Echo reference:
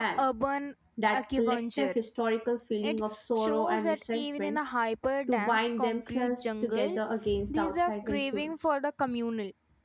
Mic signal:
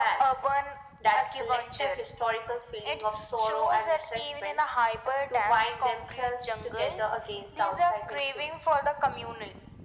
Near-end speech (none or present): none